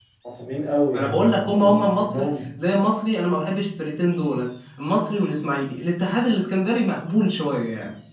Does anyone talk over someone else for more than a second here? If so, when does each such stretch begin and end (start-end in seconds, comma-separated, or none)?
0.9-2.3